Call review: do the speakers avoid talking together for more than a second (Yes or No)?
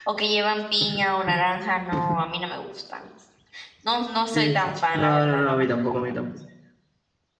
No